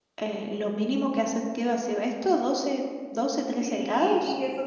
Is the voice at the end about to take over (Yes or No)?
Yes